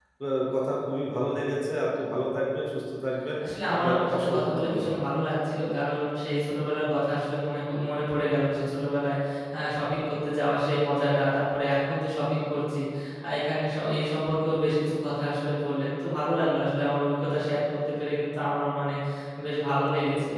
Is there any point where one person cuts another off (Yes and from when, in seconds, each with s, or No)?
Yes, from 3.7 s